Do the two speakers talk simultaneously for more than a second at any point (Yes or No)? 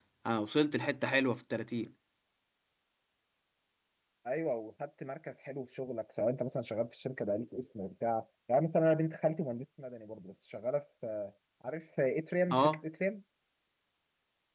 No